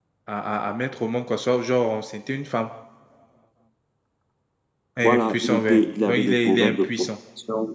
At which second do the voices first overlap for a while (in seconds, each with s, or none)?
5.0 s